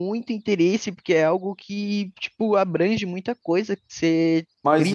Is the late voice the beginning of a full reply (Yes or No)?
Yes